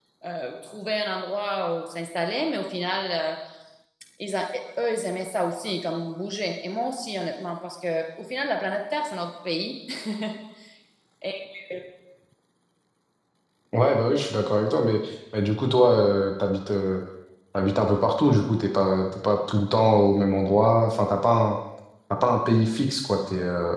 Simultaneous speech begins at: none

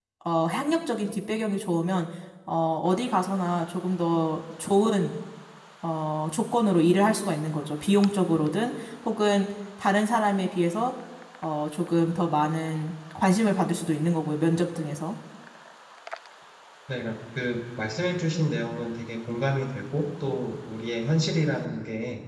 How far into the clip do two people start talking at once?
none

